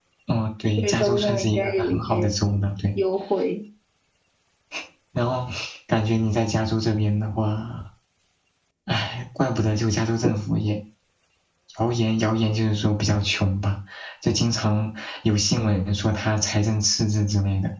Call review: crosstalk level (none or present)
present